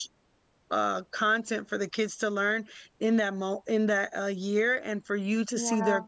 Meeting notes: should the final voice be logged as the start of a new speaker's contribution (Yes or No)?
No